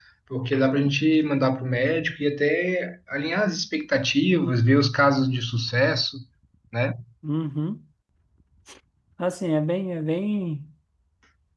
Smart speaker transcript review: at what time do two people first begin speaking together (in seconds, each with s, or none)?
none